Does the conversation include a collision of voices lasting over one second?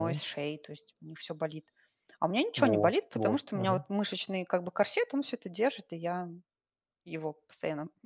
Yes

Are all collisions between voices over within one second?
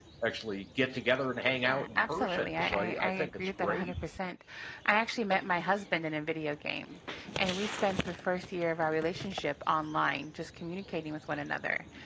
No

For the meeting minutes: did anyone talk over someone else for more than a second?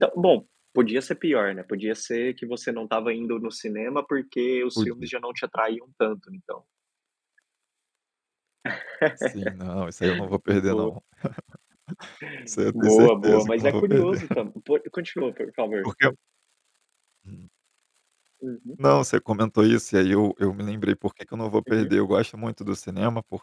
Yes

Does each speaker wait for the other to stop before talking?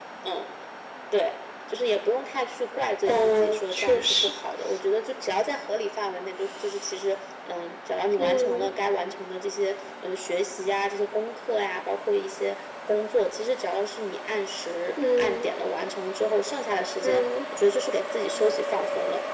No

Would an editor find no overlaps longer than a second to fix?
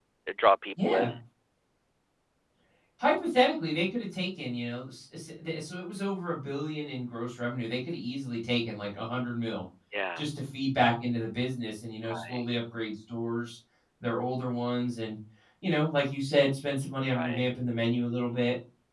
Yes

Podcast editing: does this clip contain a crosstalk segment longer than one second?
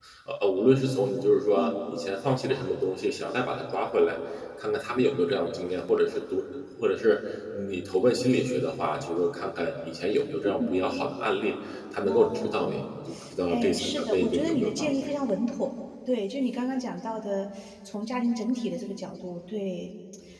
Yes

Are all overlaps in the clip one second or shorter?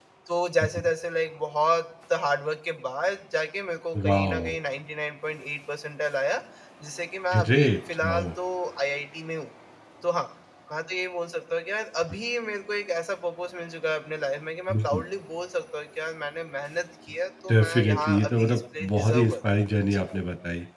No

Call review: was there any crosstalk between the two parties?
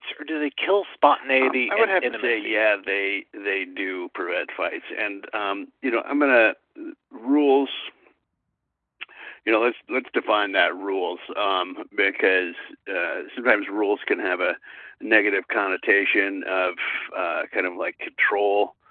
Yes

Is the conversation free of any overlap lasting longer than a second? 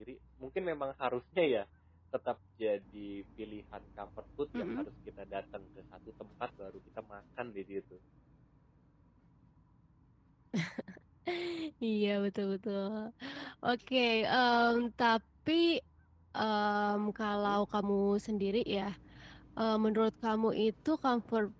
Yes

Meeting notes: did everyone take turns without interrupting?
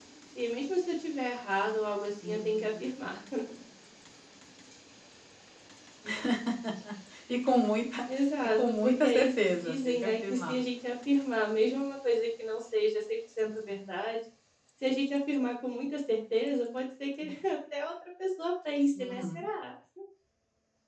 No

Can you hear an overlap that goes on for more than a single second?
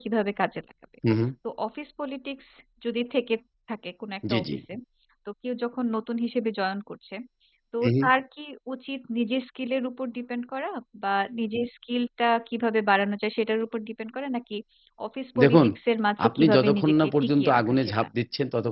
Yes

